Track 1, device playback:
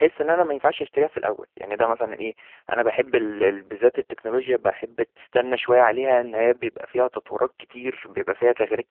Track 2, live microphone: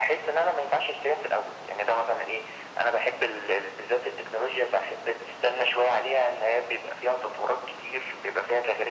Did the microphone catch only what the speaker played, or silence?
Yes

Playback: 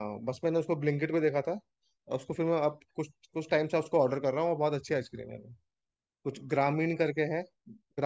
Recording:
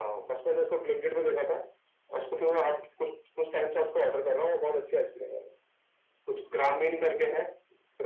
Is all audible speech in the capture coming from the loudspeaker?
Yes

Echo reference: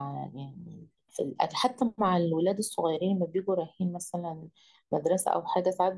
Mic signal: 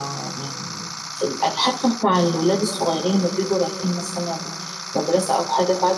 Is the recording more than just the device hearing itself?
No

